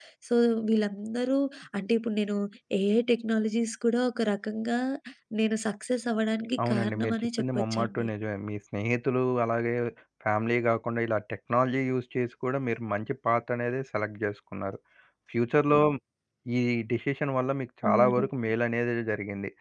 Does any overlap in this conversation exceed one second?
Yes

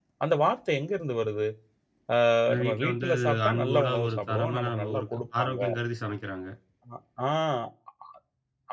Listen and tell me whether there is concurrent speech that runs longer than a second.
Yes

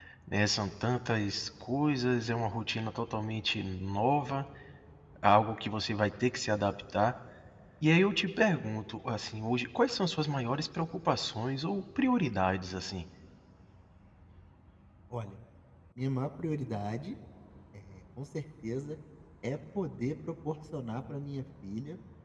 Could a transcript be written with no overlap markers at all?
Yes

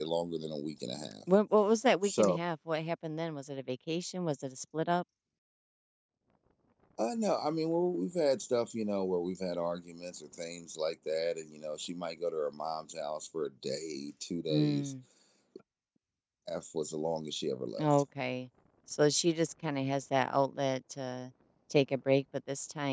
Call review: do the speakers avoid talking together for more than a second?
Yes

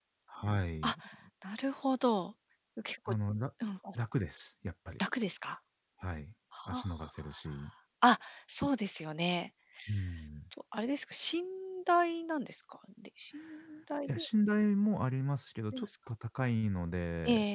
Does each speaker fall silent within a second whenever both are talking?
Yes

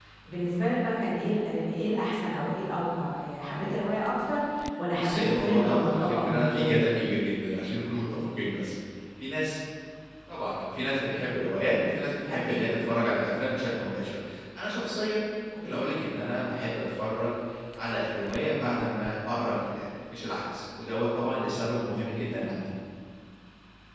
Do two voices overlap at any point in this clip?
Yes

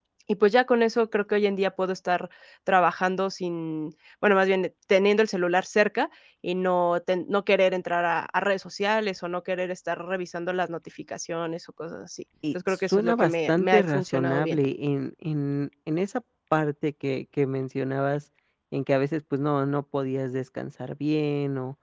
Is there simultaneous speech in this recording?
Yes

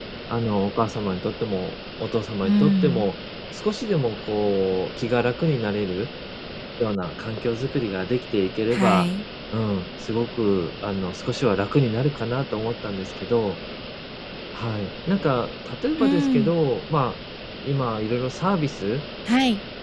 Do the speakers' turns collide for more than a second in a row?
No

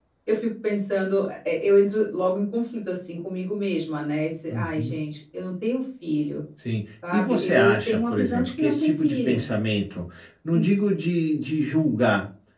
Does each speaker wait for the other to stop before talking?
No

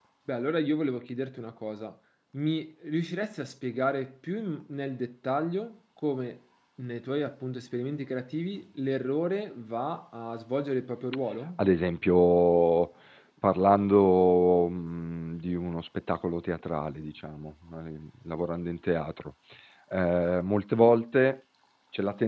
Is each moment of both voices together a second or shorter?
Yes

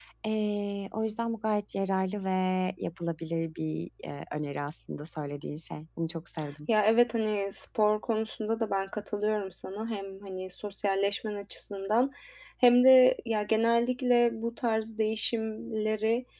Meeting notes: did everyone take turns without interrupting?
Yes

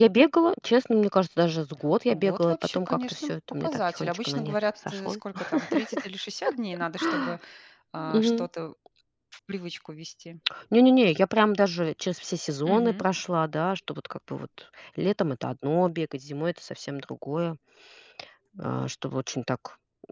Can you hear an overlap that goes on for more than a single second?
Yes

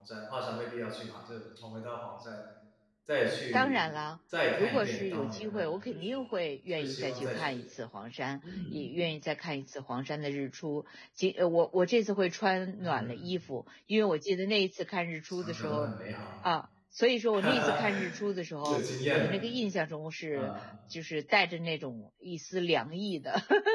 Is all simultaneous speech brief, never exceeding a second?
No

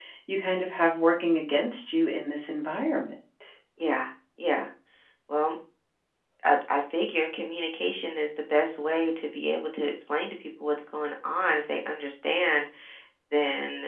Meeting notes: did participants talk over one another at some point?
No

